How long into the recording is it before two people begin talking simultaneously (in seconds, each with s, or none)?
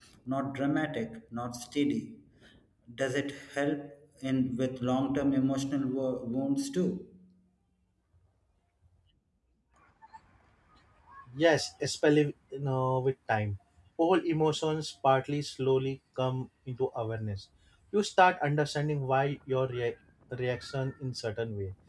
none